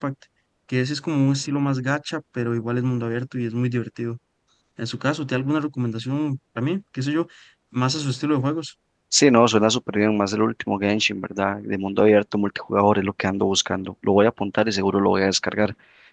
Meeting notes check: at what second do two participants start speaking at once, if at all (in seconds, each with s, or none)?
none